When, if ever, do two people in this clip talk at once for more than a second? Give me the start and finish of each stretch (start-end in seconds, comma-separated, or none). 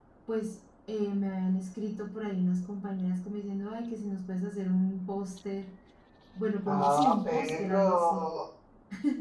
6.7-8.2